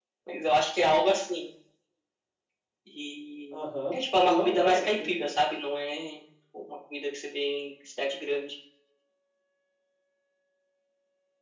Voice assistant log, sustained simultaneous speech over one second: present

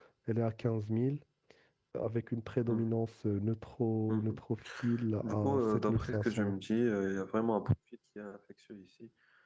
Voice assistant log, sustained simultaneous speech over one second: present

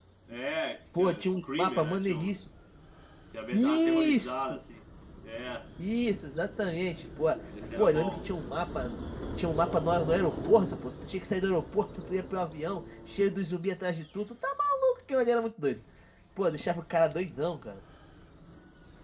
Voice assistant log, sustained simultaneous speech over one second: present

